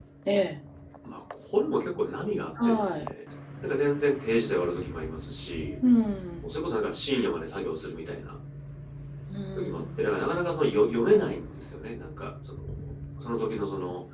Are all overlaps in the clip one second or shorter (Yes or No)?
Yes